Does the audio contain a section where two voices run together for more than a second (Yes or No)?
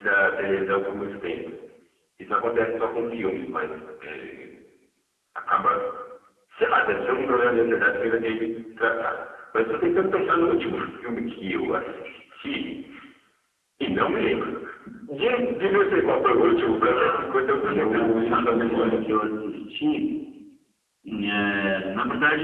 Yes